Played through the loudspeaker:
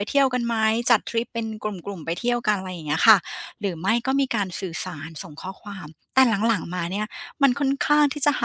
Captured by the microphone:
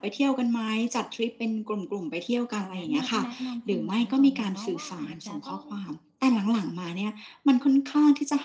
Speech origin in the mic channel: both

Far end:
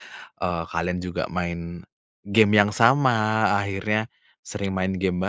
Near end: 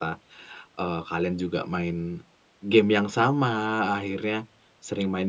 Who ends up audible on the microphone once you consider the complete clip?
echo only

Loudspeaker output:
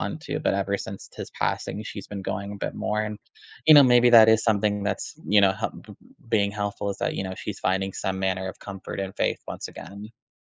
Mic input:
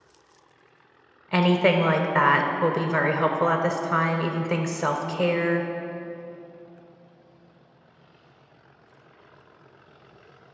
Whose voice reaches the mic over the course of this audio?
user only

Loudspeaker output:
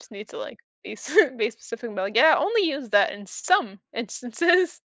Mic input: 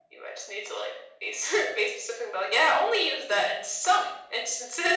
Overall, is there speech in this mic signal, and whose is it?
echo only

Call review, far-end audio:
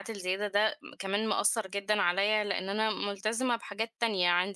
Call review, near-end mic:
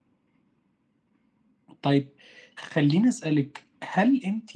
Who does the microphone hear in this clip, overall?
user only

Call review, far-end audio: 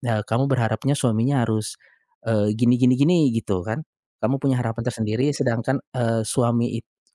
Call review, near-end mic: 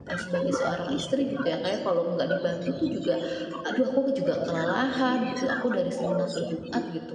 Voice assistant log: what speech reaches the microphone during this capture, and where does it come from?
both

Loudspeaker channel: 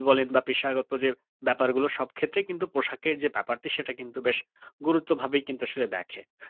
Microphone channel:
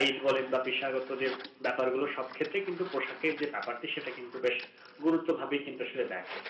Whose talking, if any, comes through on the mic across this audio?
echo only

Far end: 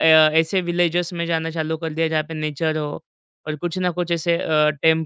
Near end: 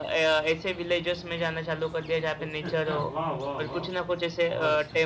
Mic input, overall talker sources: both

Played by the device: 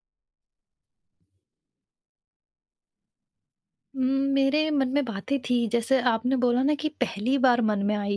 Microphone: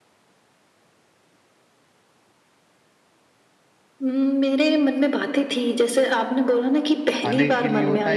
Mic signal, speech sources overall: both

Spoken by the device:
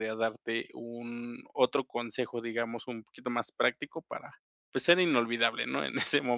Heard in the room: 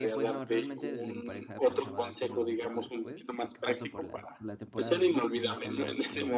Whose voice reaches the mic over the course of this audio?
both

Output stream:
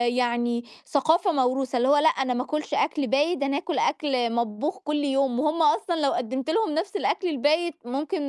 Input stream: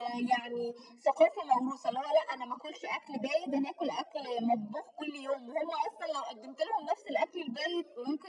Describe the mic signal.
echo only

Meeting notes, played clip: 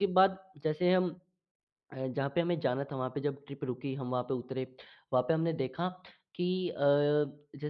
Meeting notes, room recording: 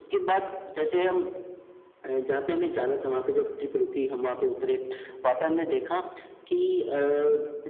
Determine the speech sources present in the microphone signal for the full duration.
echo only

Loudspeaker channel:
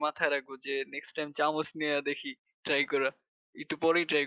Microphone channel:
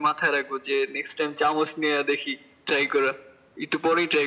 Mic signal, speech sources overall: echo only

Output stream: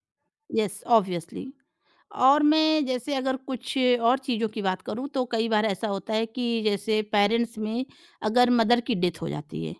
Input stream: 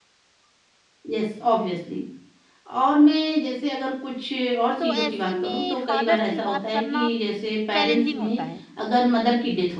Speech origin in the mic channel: both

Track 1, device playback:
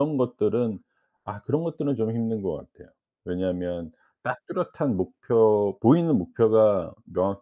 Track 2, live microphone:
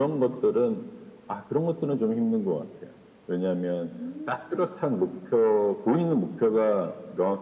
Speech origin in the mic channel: both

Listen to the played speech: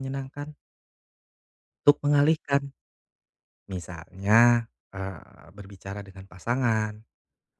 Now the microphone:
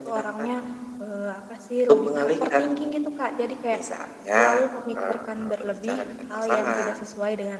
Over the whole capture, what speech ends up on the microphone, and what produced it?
both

